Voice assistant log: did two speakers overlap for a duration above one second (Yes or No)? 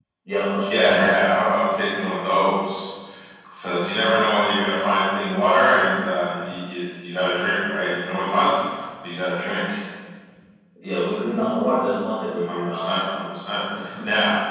No